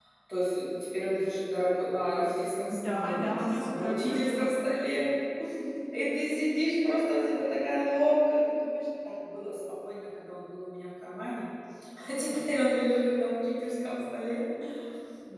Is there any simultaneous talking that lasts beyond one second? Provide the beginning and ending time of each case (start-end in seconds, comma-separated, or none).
2.9-4.6